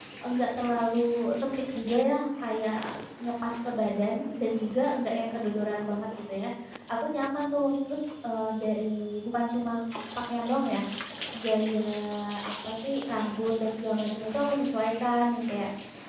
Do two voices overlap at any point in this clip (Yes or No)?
No